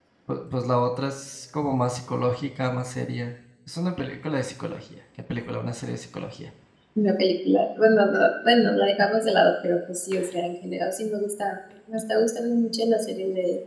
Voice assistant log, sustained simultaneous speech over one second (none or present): none